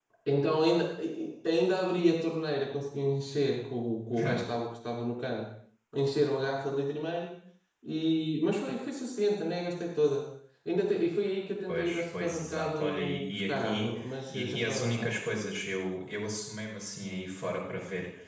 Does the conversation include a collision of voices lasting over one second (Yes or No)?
Yes